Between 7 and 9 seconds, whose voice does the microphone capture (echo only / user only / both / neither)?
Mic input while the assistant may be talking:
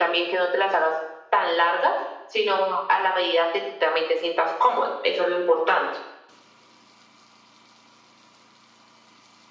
neither